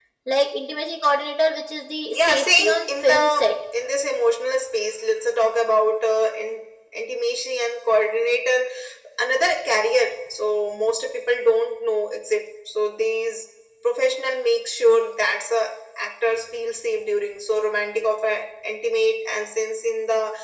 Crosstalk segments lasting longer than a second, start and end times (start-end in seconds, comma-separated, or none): 2.1-3.5